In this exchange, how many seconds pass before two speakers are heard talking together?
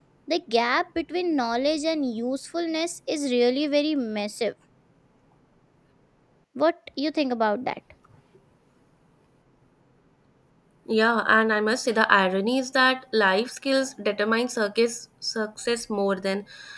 none

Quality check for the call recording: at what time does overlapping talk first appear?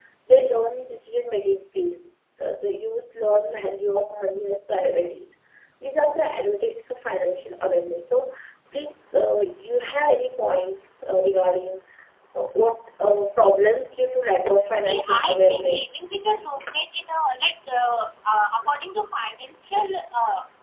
14.8 s

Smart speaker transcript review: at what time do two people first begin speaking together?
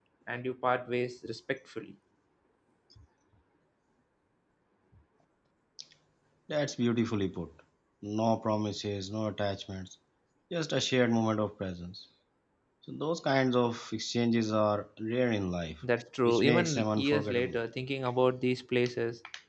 16.2 s

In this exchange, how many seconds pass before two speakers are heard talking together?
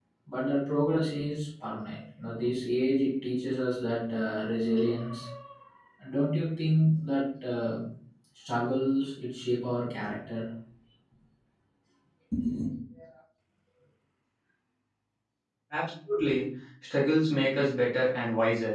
none

